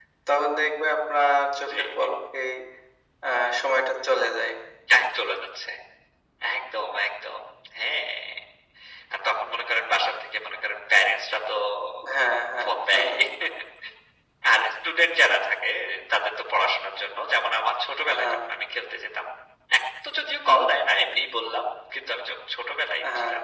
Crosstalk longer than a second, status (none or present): none